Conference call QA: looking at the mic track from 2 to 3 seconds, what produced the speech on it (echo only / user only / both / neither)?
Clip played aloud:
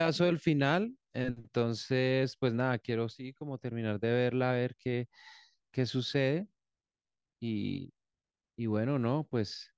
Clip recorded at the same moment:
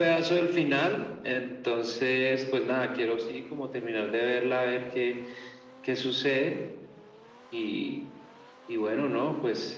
echo only